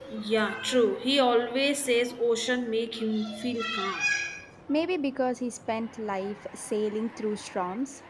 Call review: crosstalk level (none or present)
none